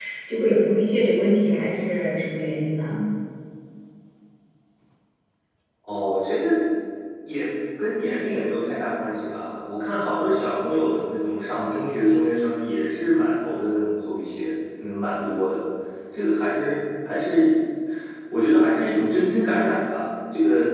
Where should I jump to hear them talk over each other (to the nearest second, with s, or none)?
none